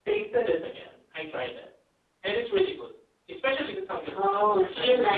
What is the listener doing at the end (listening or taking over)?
taking over